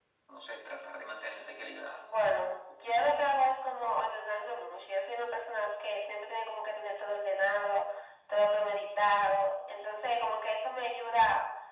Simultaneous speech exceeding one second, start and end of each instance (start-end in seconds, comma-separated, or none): none